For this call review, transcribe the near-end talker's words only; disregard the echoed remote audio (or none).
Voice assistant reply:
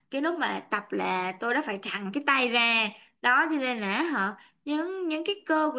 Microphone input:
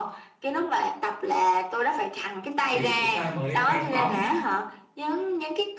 thì chúng ta mới ném bóng